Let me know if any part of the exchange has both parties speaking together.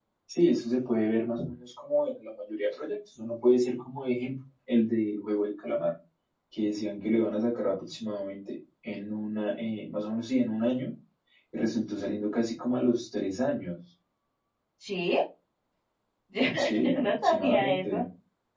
Yes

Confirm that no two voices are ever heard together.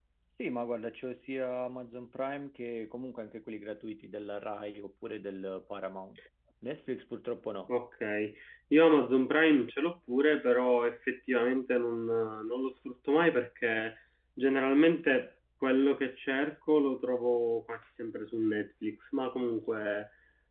Yes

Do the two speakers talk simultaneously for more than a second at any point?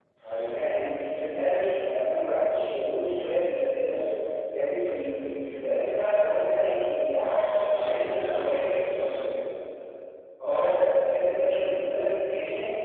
Yes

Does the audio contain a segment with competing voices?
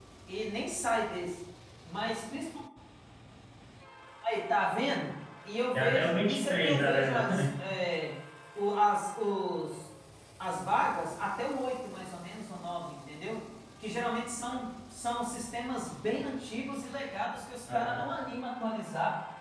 Yes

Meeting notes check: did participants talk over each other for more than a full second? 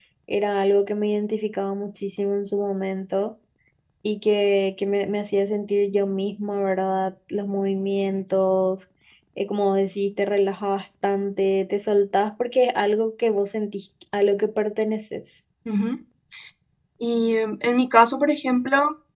No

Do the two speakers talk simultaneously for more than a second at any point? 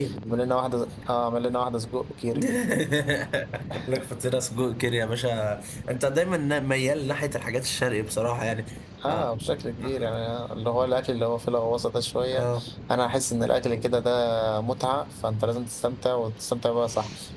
No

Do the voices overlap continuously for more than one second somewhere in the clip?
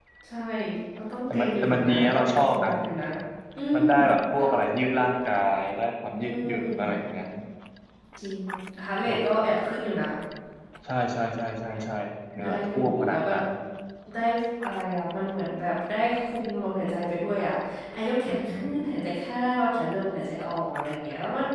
Yes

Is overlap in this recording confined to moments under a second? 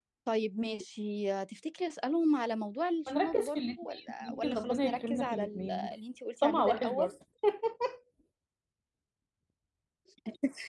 No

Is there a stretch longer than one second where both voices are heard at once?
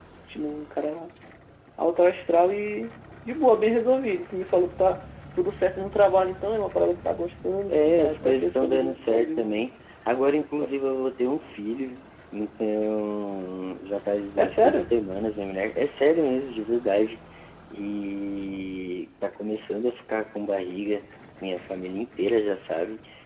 Yes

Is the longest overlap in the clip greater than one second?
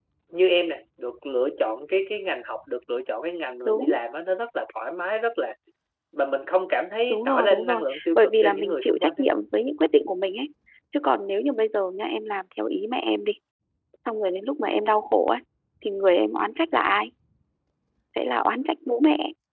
Yes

